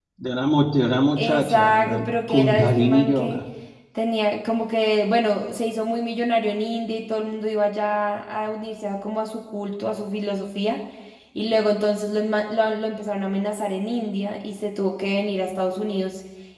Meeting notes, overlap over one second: present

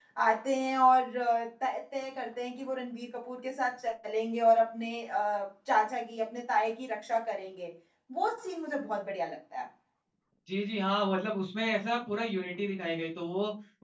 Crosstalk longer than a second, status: none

